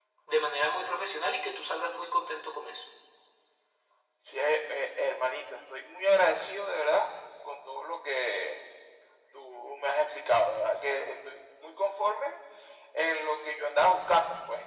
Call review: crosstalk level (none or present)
none